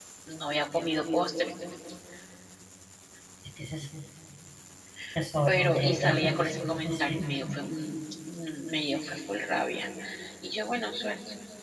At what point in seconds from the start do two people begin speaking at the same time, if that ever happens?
5.5 s

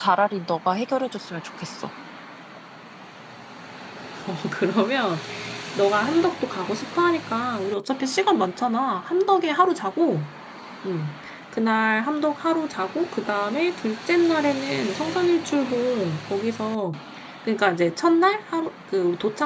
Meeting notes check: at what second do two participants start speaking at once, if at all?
none

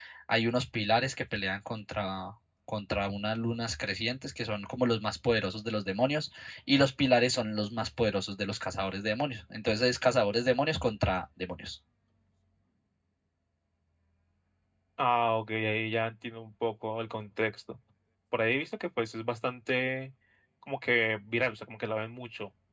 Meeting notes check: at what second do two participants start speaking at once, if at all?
none

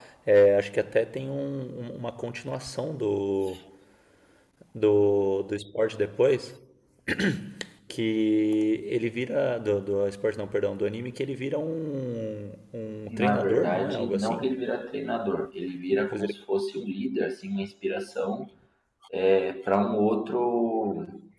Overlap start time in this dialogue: 13.2 s

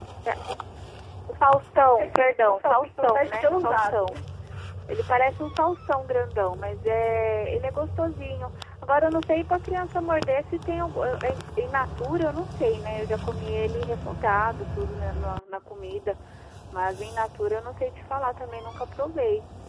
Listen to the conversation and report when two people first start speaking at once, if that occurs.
2.0 s

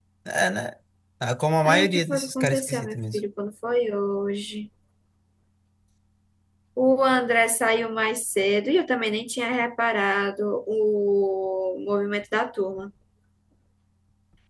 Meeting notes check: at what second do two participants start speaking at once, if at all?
1.6 s

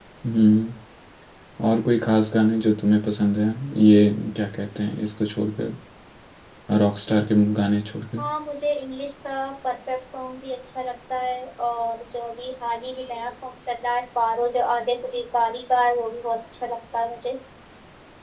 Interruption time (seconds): none

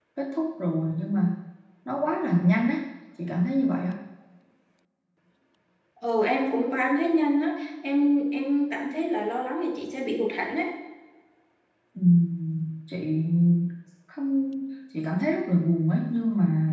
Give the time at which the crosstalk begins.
none

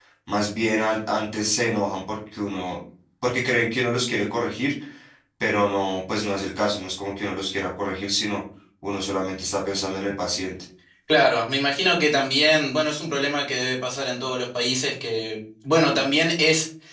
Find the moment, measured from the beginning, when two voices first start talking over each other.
none

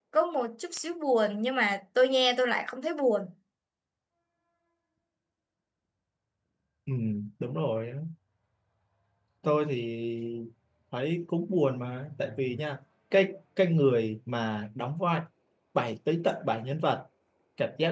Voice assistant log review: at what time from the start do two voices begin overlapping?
none

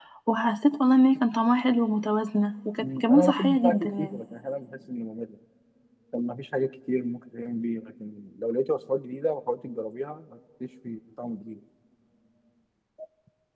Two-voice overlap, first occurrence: 2.8 s

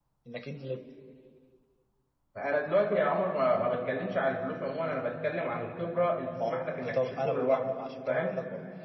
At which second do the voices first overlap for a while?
6.3 s

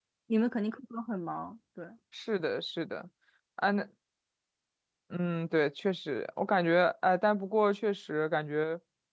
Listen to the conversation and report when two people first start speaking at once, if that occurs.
none

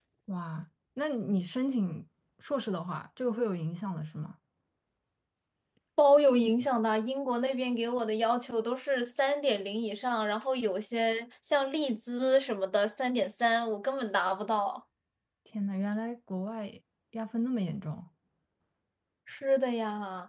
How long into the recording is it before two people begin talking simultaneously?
none

